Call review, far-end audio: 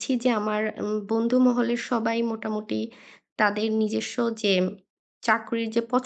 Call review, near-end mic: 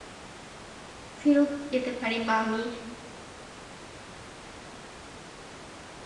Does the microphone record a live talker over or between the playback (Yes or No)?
Yes